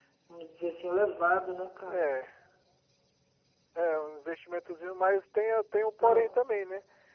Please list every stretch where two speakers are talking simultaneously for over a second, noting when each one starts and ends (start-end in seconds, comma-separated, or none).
none